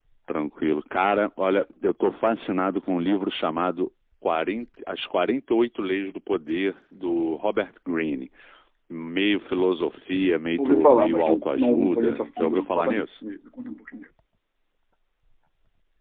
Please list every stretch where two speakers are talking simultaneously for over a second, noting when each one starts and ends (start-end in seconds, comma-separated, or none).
10.6-13.0